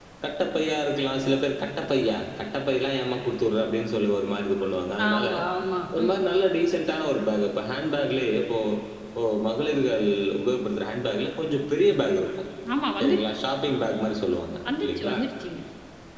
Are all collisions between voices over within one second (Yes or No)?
Yes